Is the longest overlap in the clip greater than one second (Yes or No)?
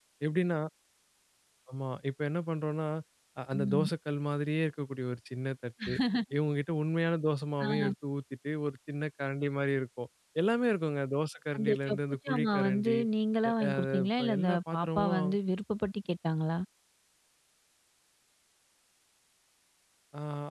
Yes